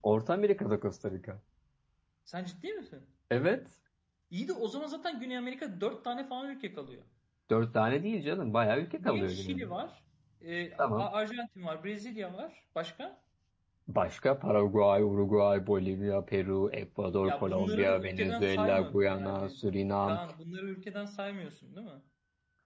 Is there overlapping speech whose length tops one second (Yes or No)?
Yes